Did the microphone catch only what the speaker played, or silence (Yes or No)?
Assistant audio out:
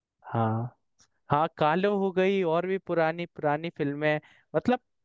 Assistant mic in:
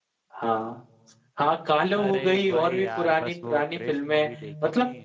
No